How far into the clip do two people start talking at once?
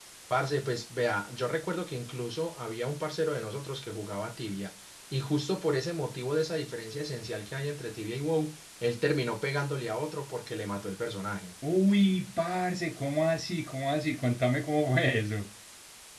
none

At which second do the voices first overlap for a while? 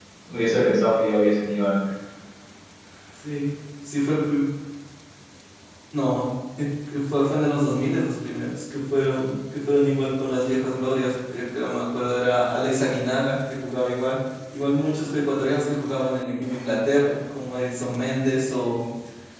none

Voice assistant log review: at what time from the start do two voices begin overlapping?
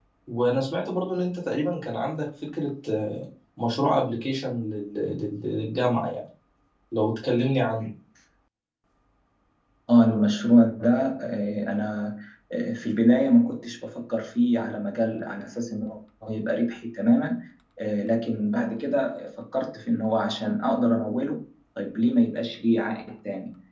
none

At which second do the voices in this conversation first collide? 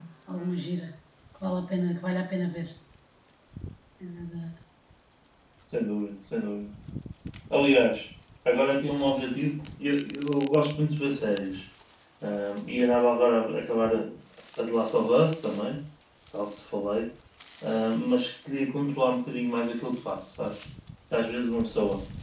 none

